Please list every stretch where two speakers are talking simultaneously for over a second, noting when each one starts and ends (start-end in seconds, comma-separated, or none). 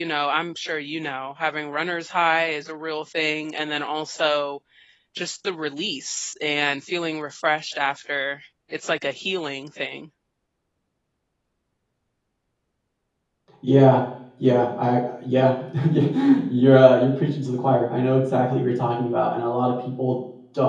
none